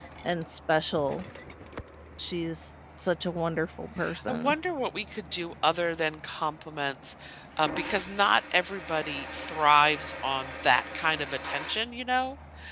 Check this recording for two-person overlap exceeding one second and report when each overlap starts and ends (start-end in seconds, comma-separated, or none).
none